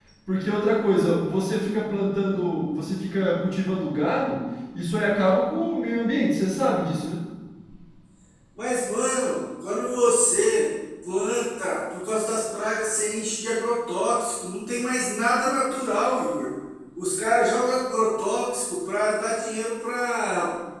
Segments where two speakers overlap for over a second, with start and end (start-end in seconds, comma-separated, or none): none